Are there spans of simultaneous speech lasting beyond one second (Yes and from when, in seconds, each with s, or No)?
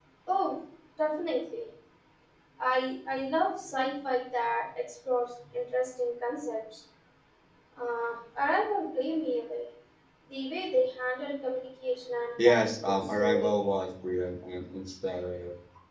Yes, from 12.4 s